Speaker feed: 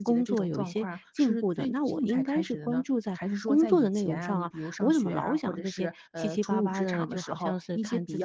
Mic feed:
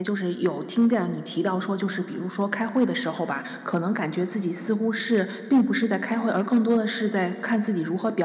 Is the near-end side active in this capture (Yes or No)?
Yes